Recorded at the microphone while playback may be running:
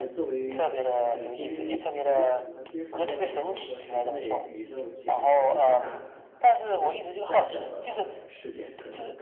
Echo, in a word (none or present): present